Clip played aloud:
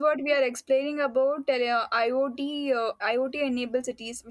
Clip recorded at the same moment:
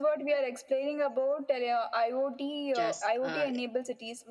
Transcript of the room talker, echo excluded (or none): Just uh,